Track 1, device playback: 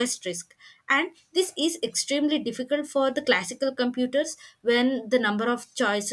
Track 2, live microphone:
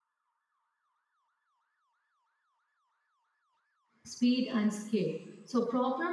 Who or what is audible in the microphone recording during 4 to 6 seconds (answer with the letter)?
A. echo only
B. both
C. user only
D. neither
C